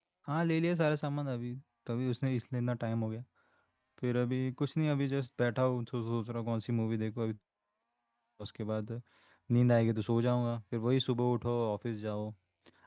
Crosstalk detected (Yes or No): No